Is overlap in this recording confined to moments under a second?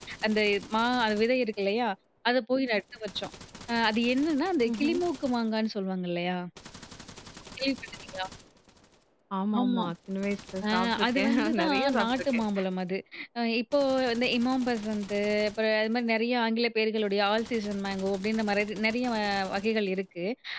No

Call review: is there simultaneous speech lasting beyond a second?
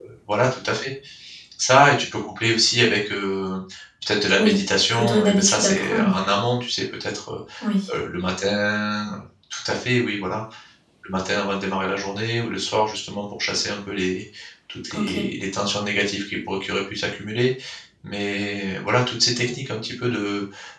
Yes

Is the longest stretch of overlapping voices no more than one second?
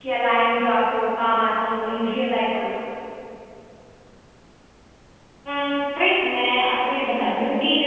Yes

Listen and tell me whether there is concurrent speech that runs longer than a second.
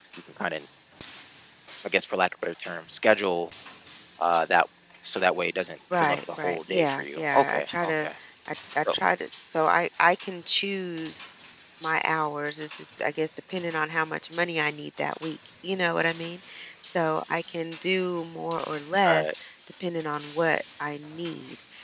Yes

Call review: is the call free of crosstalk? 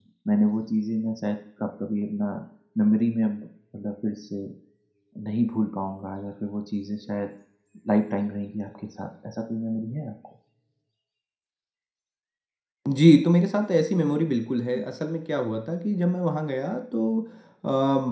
Yes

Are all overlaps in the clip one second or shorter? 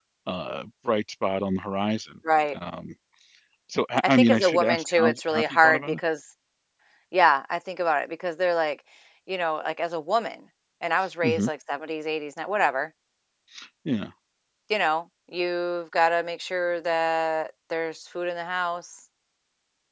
No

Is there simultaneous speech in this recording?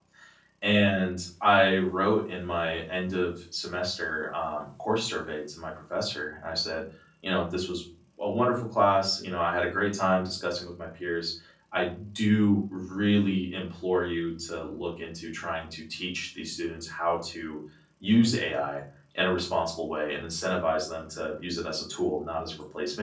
No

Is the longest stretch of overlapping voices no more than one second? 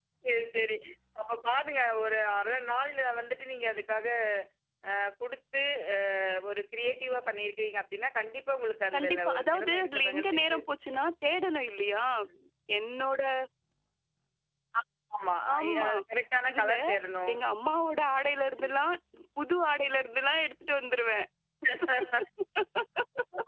No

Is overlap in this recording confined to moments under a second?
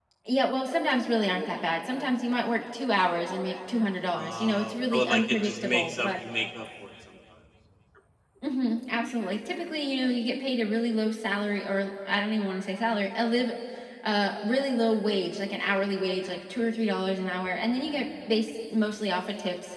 No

